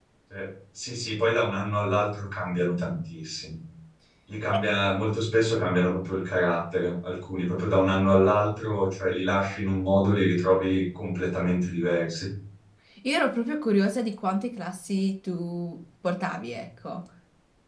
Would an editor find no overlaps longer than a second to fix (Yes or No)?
Yes